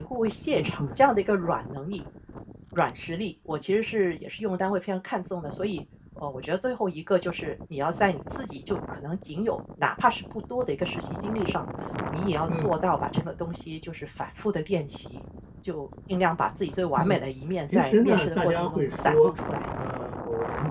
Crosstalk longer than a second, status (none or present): present